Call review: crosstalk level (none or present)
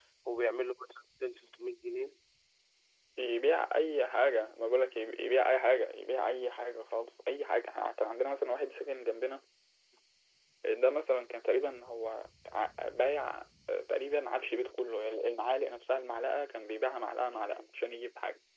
none